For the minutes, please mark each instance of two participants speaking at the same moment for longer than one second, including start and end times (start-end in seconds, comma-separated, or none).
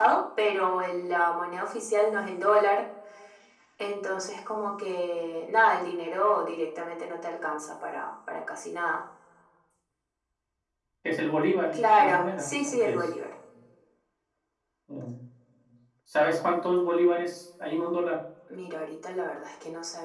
11.7-13.0